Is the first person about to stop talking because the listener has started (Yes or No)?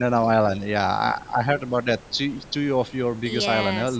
Yes